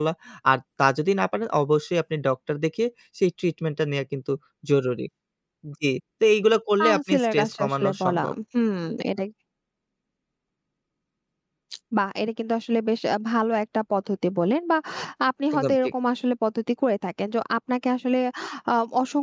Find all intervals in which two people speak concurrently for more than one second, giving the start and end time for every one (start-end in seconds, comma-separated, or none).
6.8-8.3